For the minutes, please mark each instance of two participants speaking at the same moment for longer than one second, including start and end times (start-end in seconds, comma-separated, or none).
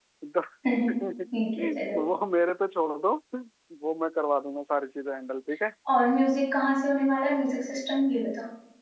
none